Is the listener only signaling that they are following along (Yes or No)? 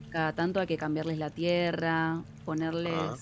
Yes